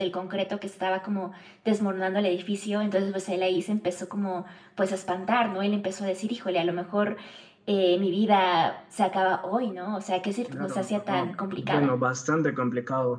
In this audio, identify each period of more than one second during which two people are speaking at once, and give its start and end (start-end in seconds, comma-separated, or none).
10.5-11.9